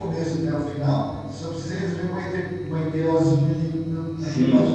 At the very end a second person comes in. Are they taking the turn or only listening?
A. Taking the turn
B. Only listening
A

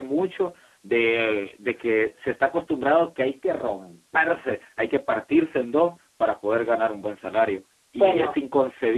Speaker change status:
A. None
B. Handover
A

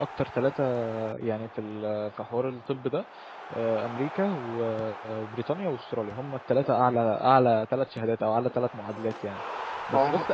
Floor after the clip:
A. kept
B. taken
A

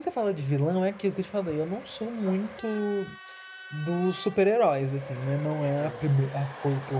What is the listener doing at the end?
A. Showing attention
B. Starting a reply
A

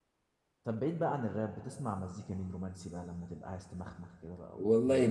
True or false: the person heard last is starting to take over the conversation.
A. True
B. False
A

